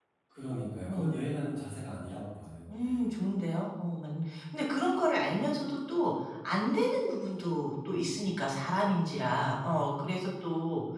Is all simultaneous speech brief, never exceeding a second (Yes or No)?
Yes